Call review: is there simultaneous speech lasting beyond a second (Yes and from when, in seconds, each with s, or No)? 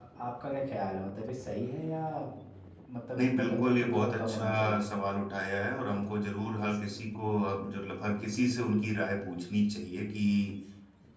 Yes, from 3.2 s